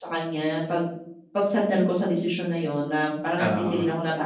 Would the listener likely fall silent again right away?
Yes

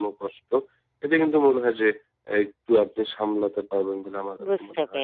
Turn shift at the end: Yes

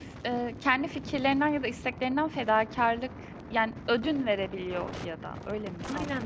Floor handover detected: Yes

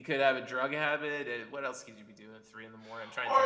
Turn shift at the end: Yes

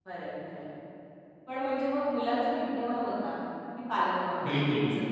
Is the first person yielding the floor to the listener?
Yes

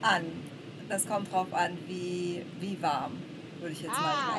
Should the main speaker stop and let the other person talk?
Yes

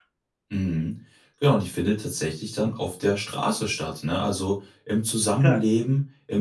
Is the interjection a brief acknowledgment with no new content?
Yes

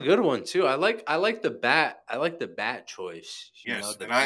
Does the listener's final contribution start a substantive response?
Yes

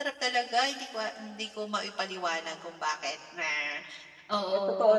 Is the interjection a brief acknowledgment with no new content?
No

